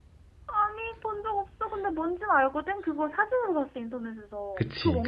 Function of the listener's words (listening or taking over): taking over